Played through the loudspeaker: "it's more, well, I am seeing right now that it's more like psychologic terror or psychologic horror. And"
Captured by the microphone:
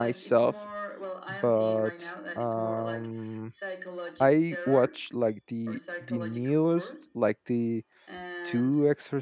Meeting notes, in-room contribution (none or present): present